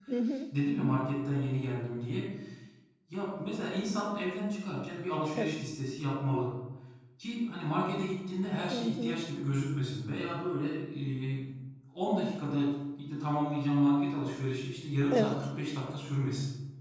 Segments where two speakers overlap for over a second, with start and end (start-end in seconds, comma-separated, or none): none